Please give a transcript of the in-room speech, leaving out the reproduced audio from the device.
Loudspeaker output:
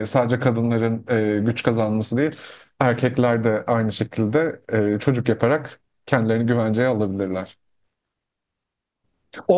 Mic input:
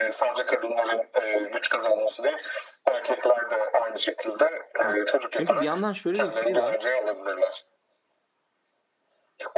Heh. Çünkü bir yandan şöyle de bir şey var.

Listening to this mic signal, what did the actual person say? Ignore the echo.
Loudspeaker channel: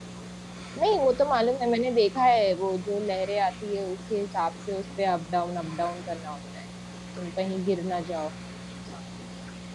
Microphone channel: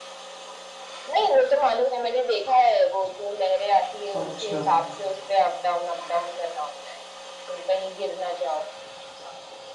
अच्छा

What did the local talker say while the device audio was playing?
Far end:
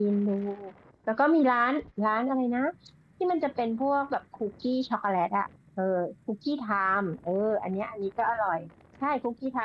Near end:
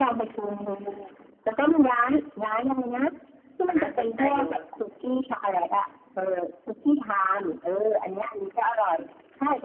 อันน่าสนใจอยู่

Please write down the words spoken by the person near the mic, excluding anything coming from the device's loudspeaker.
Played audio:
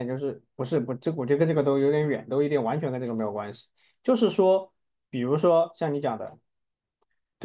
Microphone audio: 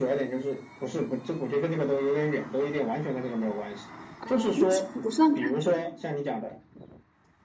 嗯，那这个不算感觉。

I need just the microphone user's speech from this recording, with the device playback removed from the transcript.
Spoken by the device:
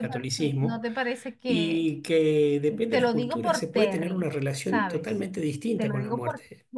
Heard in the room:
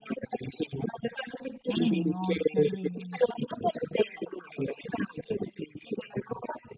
ay, no, terrible.

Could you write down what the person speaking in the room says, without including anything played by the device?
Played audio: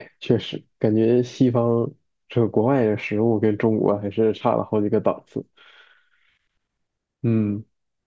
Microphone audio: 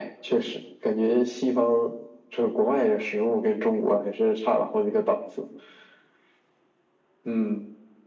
none

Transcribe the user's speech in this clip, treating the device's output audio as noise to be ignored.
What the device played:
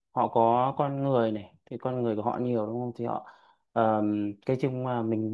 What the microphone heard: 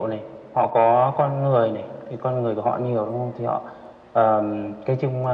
none

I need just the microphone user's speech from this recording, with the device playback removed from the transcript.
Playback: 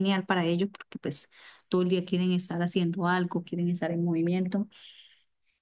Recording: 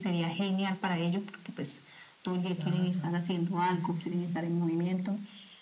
Claro, sí, sí, sí.

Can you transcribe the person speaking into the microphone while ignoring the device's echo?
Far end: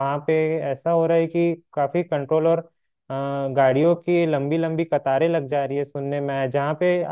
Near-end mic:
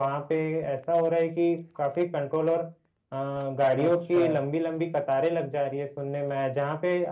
अच्छा

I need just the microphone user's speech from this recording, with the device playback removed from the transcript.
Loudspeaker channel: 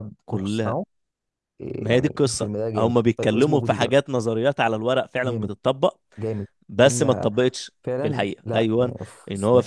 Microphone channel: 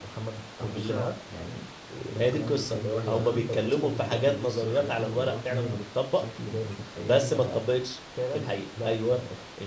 على فكره يعني الافلام دي بتخلي الواحد فعلا ممكن يبص لحاجات تانيه بمنظورات تانيه بشكل انت مش متخيله

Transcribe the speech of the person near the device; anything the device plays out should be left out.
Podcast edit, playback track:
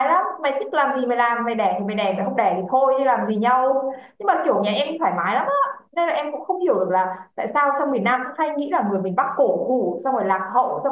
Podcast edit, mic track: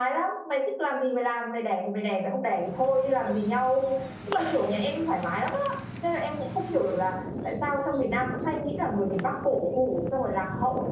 none

